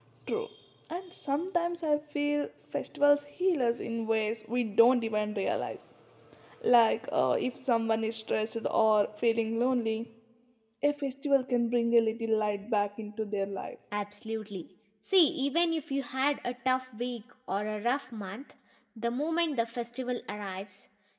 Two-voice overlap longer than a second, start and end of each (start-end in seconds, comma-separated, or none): none